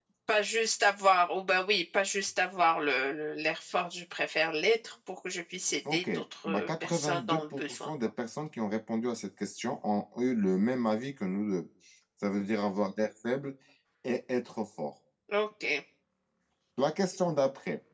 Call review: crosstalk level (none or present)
present